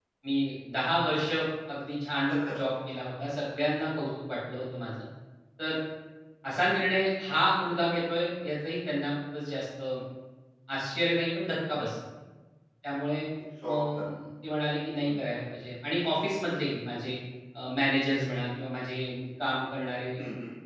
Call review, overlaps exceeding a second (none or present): none